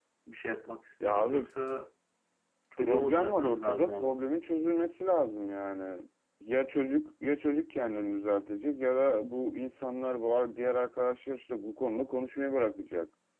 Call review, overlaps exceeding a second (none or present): present